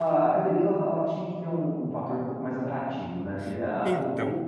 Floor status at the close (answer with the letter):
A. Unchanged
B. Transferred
A